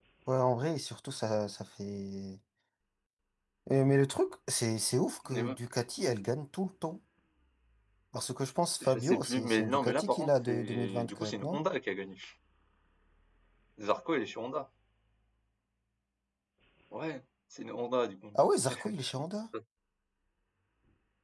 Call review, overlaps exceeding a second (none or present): present